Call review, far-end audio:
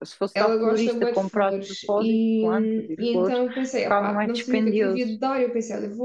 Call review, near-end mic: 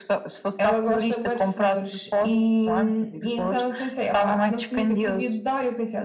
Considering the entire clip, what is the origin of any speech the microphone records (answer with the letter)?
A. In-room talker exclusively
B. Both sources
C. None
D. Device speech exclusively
D